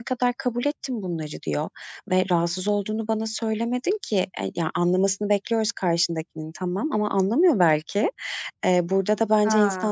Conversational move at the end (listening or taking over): listening